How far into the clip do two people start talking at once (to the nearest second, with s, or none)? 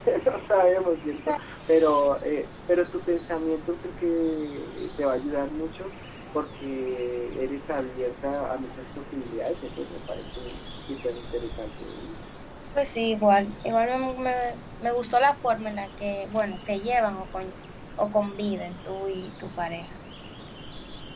none